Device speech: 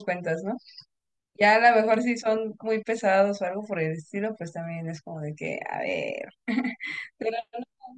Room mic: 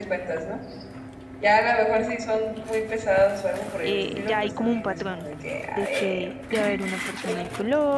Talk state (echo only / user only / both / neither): both